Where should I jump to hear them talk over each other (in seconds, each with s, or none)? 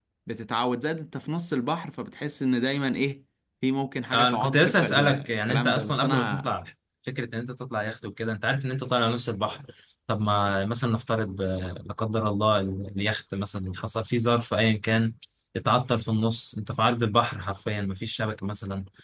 4.1 s